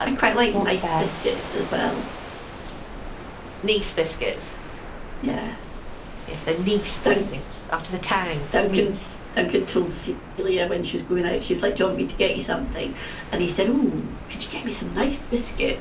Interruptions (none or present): present